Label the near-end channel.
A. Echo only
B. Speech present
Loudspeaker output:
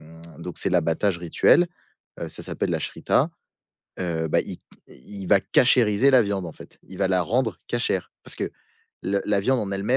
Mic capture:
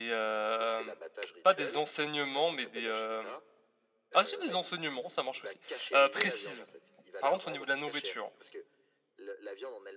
B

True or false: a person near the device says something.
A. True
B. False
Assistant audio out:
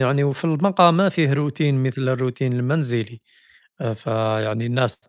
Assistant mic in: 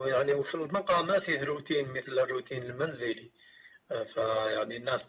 B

